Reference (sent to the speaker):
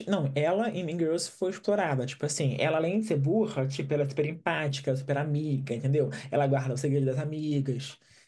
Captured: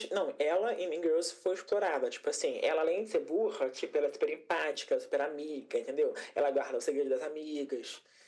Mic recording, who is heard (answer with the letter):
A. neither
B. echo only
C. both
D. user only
B